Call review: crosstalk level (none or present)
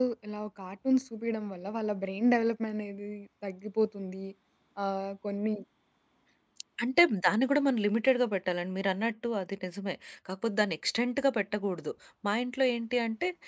none